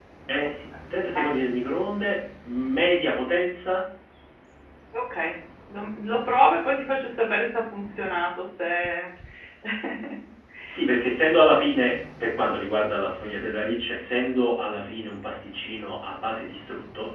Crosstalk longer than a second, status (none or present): none